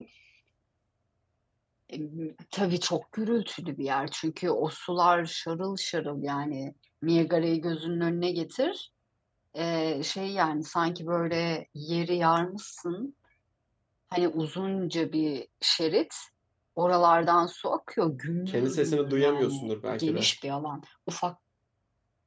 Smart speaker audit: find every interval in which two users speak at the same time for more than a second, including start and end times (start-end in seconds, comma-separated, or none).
18.5-20.3